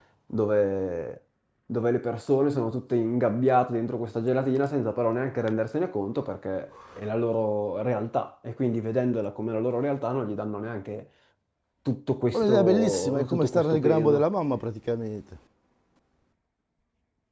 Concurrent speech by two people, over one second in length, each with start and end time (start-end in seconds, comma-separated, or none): 12.3-14.2